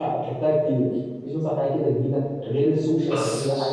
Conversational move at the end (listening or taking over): listening